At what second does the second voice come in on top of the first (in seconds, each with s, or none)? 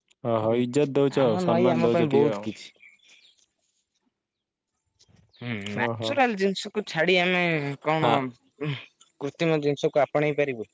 1.2 s